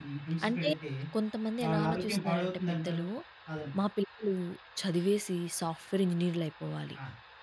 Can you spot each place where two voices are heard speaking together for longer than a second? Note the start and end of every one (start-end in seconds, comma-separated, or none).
1.6-3.0